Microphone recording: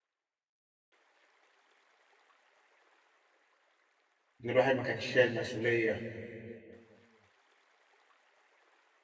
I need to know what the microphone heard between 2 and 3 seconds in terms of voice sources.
neither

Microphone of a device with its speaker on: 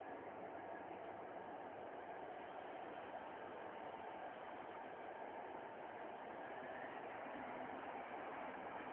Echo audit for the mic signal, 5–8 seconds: neither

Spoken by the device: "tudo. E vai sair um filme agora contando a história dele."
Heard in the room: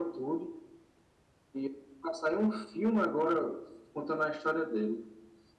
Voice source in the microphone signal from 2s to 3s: echo only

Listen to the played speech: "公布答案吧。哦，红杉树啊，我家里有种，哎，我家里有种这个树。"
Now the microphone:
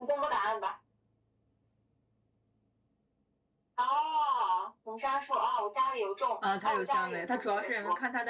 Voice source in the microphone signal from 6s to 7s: both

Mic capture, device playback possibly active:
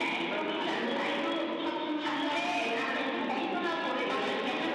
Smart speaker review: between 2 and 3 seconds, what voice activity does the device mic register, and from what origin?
echo only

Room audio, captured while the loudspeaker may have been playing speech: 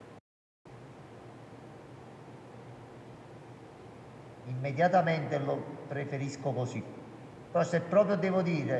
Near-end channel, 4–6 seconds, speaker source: user only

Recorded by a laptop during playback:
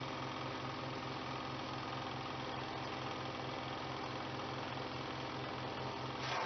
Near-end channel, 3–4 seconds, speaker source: neither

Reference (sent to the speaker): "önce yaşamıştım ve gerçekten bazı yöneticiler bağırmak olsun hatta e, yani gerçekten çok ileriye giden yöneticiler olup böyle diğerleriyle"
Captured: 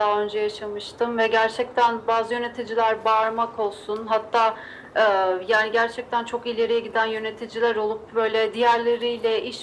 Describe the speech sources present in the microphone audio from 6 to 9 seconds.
echo only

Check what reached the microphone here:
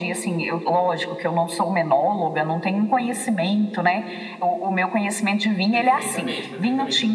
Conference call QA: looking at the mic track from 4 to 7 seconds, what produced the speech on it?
both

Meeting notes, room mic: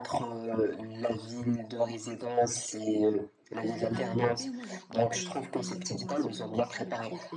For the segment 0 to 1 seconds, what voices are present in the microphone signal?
echo only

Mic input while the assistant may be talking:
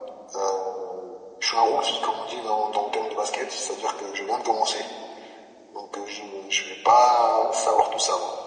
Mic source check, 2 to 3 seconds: echo only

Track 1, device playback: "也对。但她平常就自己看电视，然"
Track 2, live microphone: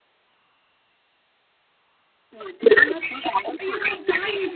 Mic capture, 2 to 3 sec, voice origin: echo only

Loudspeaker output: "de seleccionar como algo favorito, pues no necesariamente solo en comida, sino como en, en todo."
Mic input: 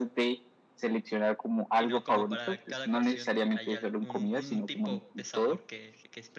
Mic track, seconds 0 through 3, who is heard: both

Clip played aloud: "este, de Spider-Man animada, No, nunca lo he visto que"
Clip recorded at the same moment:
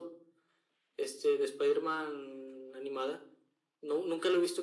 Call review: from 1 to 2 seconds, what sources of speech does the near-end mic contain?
echo only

